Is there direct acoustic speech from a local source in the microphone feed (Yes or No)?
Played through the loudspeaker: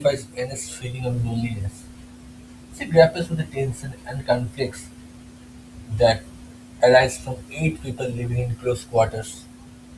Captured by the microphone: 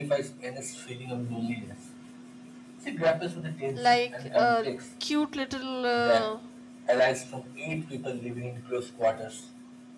Yes